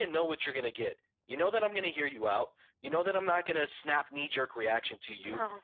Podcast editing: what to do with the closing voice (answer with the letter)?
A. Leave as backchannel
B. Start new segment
A